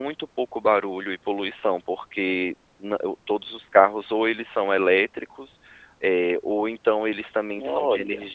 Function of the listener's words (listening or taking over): listening